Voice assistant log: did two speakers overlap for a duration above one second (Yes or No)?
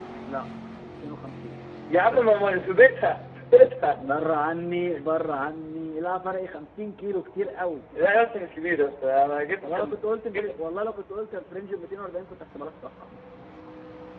No